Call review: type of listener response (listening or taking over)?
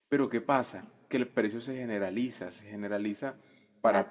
listening